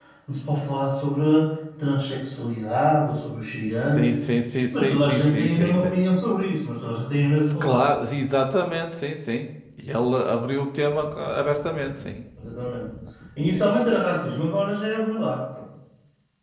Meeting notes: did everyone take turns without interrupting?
No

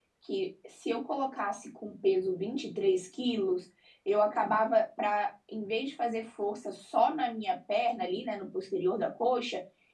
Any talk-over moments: No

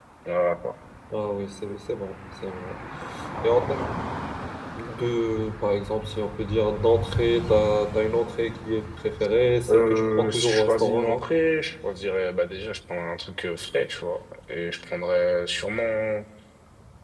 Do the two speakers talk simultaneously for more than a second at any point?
Yes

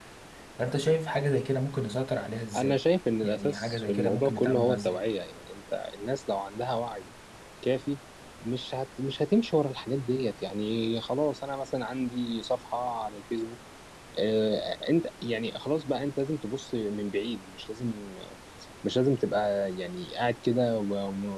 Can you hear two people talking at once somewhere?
Yes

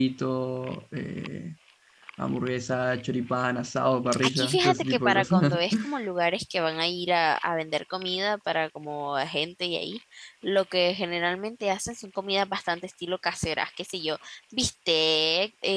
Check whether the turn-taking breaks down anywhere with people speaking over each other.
Yes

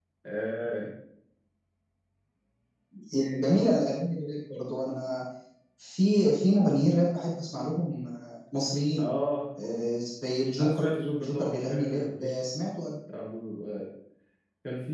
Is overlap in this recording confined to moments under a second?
No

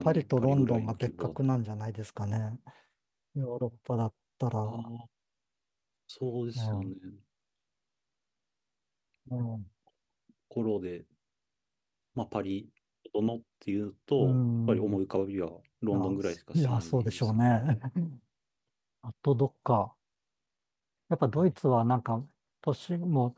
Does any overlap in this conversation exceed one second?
Yes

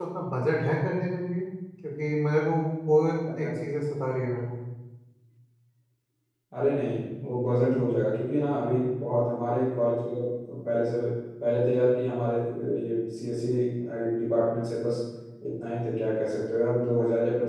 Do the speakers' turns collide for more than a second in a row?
No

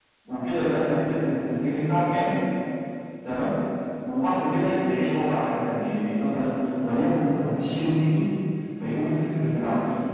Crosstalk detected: No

